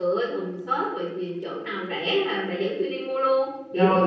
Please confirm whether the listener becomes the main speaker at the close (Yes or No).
Yes